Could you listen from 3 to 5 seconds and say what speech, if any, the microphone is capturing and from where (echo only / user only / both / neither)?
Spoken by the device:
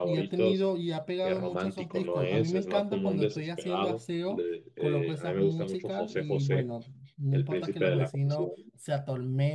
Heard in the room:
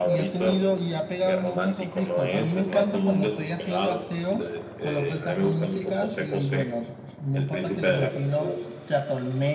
echo only